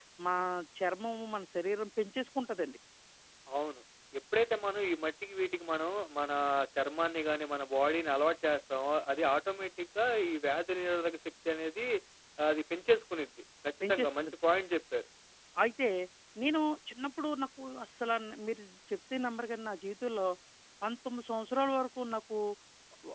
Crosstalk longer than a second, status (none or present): none